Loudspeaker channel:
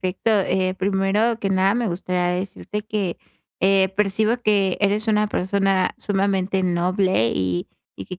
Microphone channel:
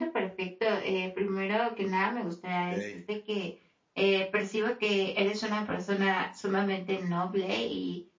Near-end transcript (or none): Okey.